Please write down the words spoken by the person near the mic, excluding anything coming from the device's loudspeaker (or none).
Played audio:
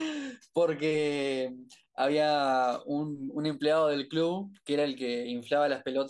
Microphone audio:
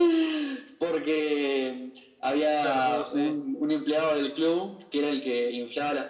Claro, uh, sí.